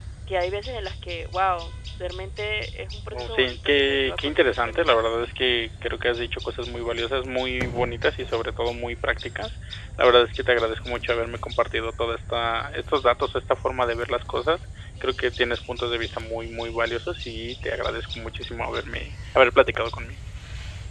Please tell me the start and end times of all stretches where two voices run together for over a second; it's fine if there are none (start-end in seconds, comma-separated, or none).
3.1-5.0